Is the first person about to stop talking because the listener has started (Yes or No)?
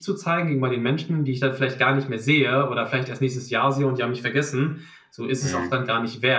No